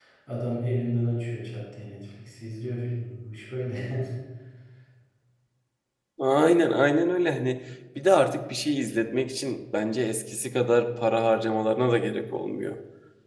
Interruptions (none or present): none